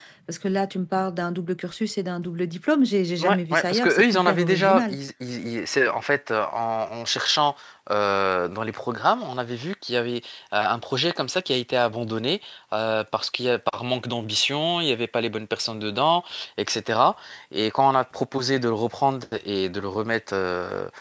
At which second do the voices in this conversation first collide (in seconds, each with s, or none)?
3.2 s